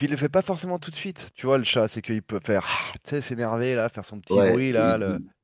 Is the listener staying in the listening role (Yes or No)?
No